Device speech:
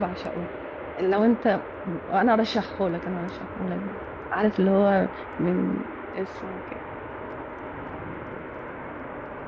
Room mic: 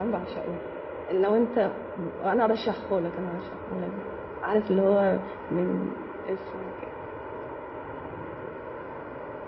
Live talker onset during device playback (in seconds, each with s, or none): none